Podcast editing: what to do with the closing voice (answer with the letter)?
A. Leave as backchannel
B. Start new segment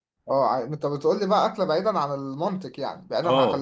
B